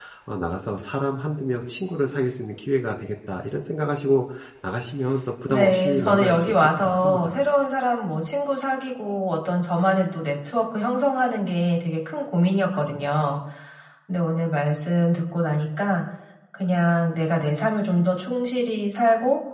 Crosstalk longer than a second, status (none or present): present